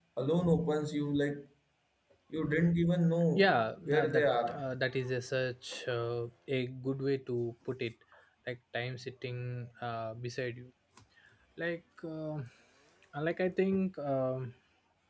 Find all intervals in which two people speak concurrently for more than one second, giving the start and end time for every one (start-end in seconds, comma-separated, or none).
3.4-4.6